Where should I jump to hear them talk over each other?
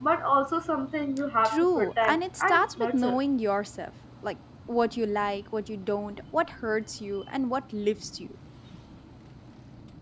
1.4 s

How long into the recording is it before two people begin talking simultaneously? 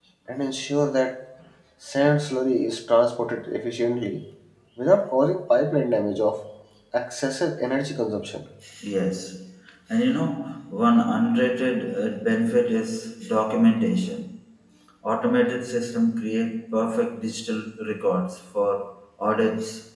none

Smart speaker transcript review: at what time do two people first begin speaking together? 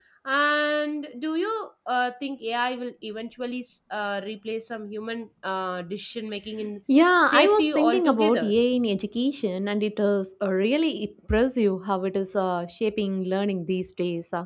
7.2 s

